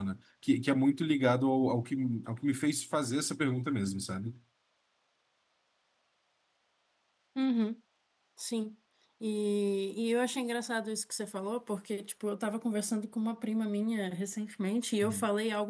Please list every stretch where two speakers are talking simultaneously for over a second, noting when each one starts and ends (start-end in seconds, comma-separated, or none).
none